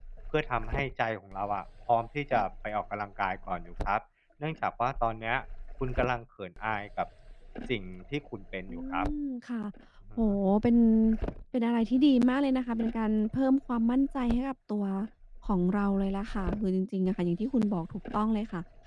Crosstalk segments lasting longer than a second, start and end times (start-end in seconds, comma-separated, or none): none